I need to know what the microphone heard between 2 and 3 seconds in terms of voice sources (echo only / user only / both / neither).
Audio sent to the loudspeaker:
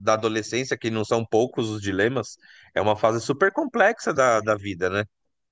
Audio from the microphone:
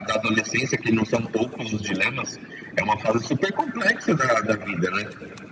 echo only